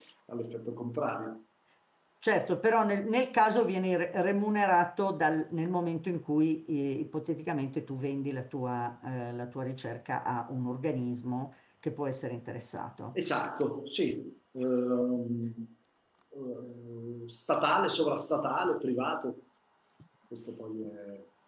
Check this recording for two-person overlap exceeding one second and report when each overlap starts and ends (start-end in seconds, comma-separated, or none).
none